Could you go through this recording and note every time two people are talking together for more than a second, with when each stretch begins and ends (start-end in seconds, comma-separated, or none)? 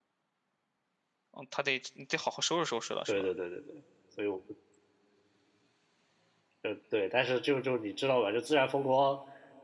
none